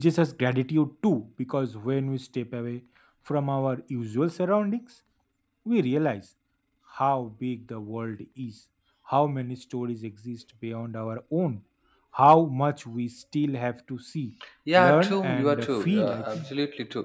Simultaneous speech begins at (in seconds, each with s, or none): 14.8 s